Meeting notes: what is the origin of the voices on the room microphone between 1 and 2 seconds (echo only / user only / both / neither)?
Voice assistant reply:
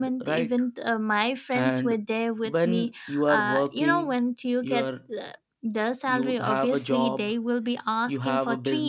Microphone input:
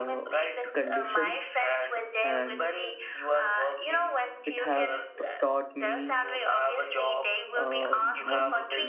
both